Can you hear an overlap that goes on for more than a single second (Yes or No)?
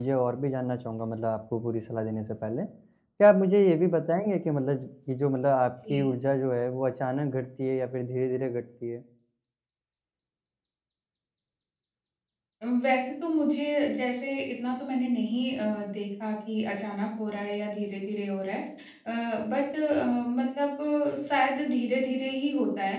No